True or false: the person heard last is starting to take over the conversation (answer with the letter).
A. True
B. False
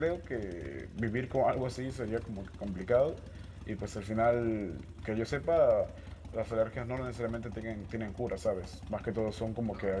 B